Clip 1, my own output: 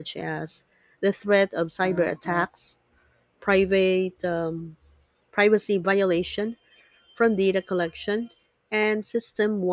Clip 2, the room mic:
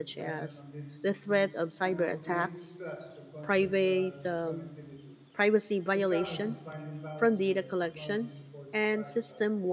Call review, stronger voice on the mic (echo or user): echo